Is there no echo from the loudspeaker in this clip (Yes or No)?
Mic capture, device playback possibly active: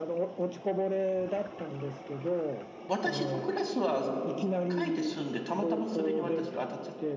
No